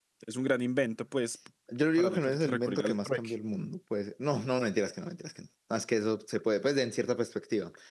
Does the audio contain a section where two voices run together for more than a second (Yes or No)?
Yes